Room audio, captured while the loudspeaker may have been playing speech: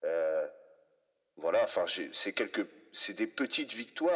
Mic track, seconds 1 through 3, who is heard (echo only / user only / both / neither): echo only